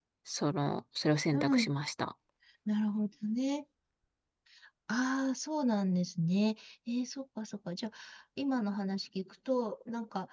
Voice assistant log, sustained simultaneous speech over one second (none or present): none